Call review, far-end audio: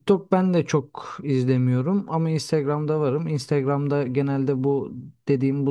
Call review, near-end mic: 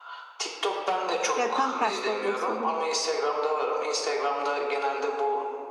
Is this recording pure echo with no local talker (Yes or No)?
No